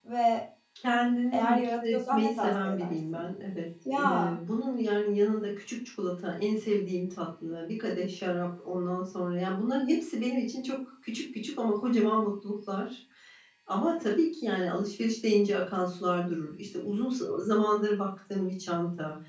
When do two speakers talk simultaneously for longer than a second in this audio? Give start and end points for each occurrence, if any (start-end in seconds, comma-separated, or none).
1.3-3.2